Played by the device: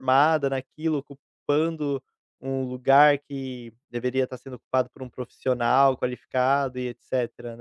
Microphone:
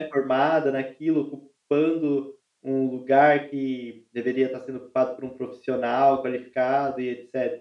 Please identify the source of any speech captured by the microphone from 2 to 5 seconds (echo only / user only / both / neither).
echo only